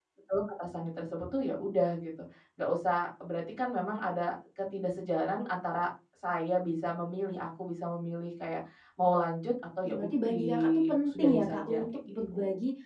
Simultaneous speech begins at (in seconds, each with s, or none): 9.8 s